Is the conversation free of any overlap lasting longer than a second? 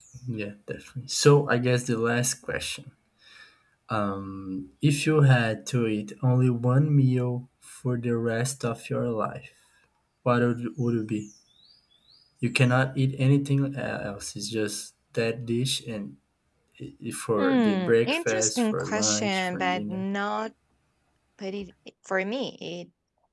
No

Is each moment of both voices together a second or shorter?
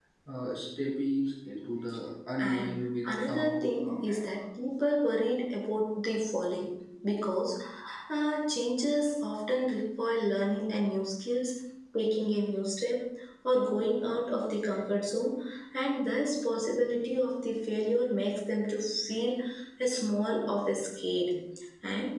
No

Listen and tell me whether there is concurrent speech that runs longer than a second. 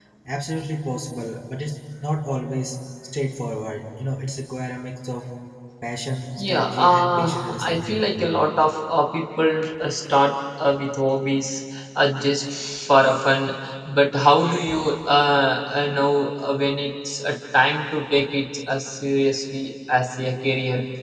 Yes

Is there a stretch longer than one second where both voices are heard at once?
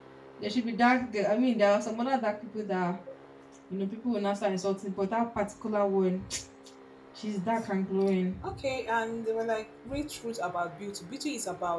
No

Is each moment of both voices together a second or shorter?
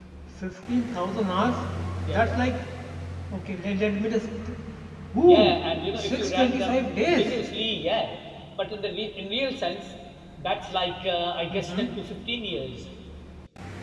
No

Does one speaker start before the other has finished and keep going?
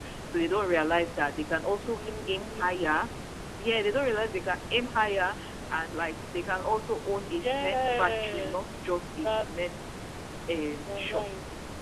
Yes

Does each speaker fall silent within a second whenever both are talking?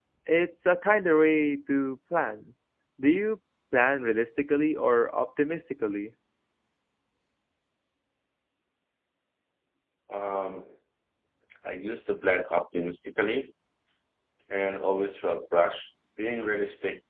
Yes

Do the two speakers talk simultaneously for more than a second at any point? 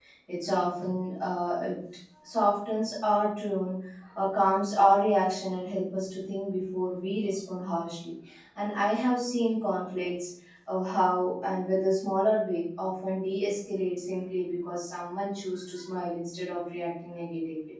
No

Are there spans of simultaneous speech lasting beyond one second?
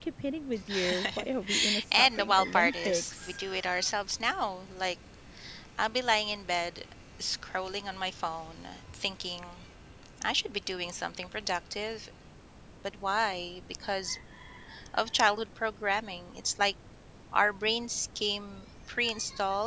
Yes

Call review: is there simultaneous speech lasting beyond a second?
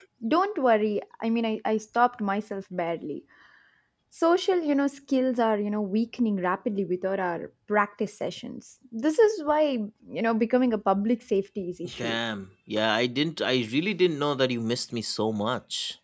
No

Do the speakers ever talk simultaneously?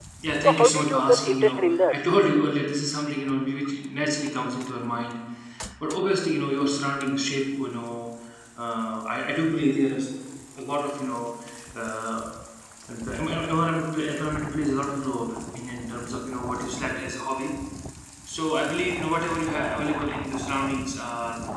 Yes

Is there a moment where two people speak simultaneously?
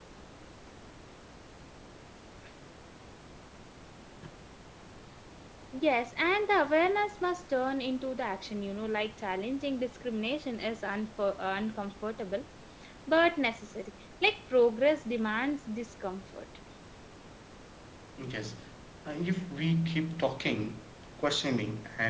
No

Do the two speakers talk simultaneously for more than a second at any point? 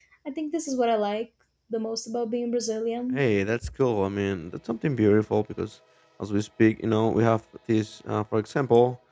No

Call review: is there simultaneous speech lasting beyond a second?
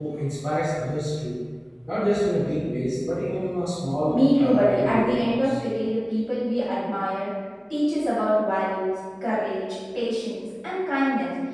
Yes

